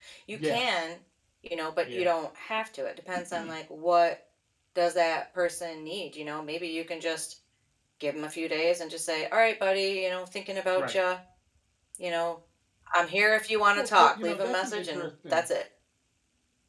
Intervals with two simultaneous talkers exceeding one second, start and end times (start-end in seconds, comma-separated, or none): 13.8-15.4